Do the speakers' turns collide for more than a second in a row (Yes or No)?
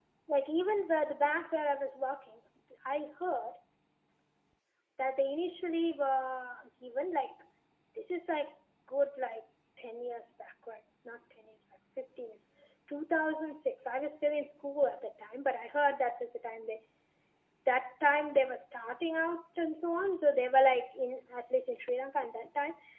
No